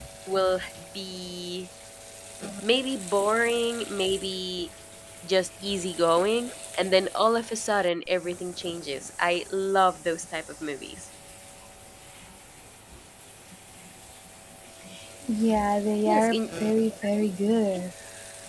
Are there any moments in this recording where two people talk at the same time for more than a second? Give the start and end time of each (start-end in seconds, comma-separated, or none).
none